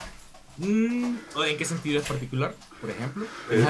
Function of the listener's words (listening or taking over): taking over